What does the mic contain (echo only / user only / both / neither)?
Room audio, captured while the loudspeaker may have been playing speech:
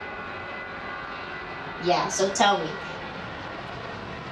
user only